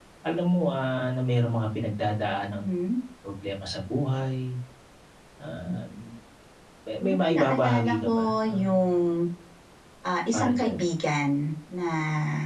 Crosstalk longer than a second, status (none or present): present